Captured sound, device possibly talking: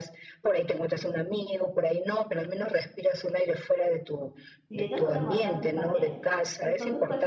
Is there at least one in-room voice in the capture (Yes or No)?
Yes